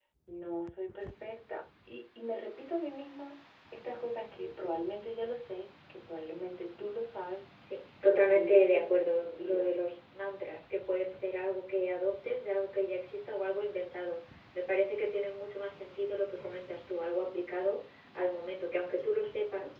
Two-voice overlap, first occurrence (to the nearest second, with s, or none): 8 s